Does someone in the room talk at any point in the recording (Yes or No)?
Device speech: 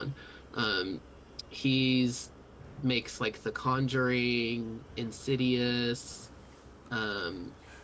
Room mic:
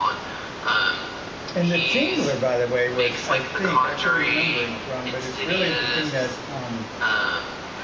Yes